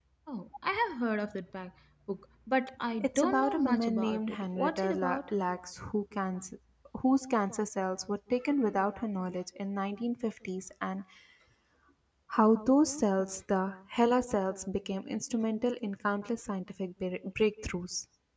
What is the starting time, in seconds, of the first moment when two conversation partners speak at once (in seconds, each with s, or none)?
3.0 s